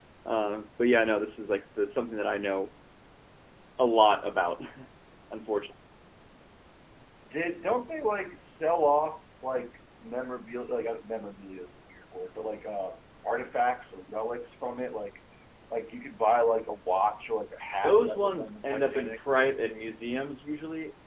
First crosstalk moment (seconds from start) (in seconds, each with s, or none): 17.8 s